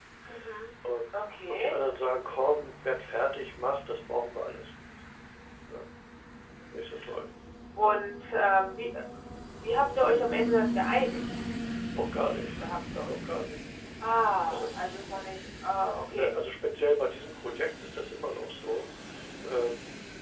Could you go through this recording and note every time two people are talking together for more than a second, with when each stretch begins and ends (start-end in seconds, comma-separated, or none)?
none